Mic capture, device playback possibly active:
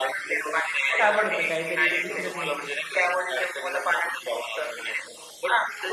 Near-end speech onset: 1.0 s

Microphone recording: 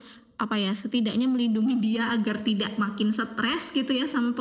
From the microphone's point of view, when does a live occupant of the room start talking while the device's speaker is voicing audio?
none

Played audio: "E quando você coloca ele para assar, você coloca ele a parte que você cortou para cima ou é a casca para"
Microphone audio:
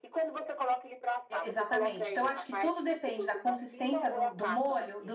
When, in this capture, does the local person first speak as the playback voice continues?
1.3 s

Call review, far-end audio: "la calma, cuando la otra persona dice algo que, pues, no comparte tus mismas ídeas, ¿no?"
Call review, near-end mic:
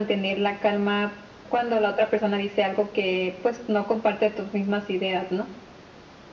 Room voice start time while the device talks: none

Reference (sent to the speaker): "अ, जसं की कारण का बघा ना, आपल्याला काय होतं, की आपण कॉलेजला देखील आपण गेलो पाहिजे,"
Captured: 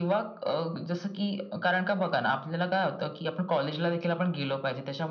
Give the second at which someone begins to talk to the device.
none

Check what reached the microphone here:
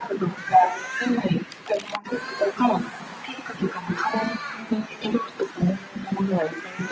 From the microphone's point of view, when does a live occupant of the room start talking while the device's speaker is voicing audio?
none

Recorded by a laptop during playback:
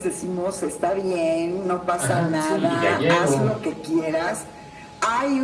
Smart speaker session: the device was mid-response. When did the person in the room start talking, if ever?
2.0 s

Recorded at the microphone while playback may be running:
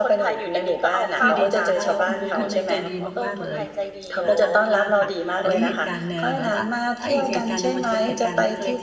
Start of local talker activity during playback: 1.2 s

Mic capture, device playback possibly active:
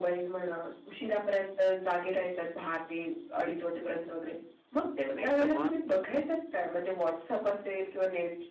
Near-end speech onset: 5.1 s

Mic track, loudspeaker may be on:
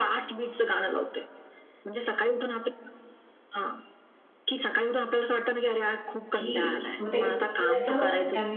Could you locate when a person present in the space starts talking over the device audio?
6.3 s

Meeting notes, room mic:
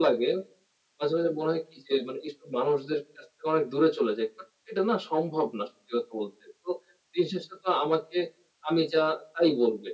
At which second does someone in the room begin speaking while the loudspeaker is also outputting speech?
none

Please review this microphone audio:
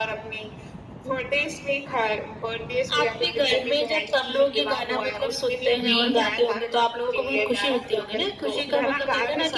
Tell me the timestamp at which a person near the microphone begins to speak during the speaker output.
5.8 s

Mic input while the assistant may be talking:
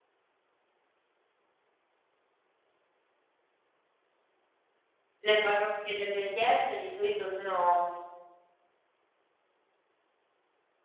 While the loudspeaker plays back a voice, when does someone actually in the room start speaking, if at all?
5.2 s

